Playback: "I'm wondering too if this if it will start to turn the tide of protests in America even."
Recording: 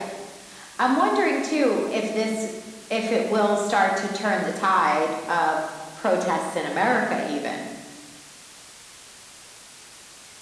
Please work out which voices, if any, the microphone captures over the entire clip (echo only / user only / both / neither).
echo only